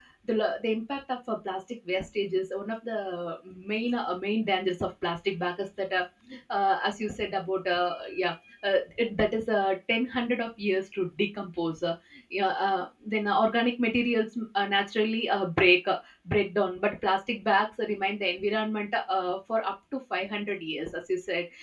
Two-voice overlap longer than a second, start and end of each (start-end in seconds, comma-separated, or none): none